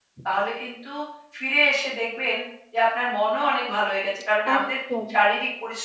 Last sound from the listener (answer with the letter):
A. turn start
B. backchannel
B